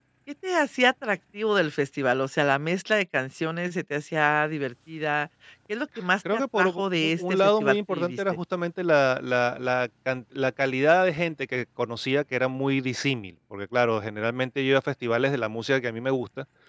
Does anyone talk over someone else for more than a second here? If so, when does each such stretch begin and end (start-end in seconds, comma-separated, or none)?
6.3-8.2